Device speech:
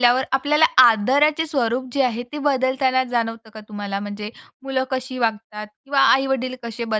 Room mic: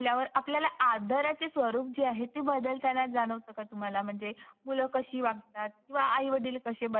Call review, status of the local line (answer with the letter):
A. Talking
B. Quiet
B